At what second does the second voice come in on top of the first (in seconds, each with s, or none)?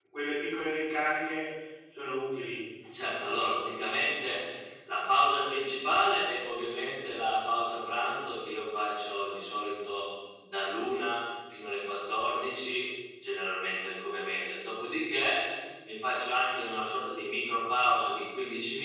none